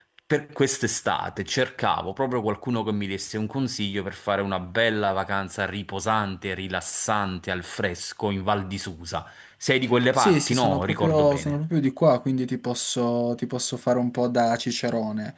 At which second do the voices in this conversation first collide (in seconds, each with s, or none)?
10.2 s